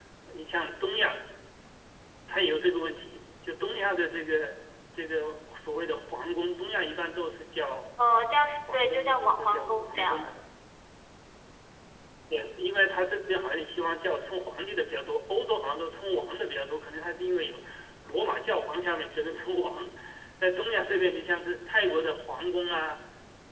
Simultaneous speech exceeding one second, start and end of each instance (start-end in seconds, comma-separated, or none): 8.7-10.3